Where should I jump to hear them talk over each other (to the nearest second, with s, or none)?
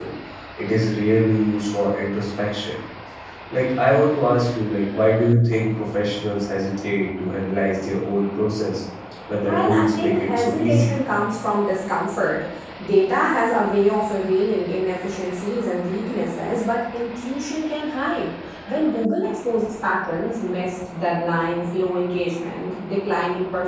9 s